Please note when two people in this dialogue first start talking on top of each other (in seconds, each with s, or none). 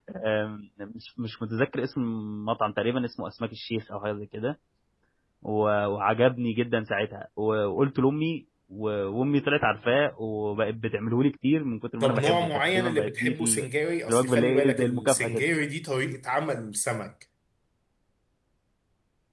12.0 s